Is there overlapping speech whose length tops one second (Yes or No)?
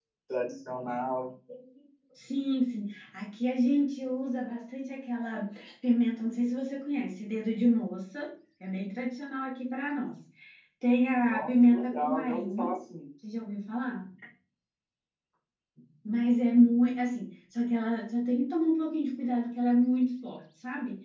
Yes